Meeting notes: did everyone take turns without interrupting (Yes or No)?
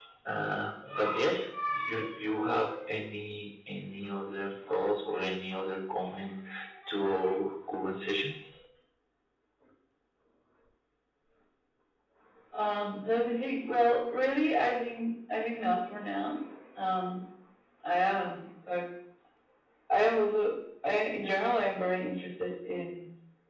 Yes